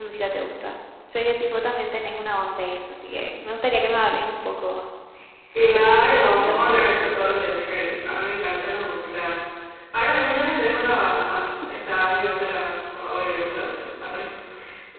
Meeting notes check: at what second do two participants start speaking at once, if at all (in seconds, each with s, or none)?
5.9 s